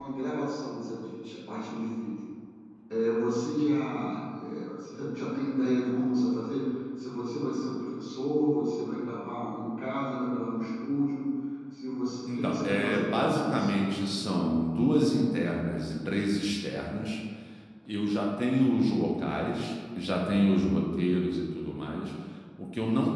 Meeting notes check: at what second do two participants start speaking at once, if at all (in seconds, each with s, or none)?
12.3 s